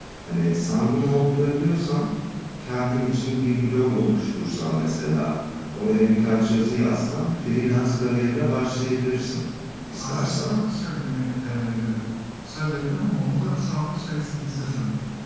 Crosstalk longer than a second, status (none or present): none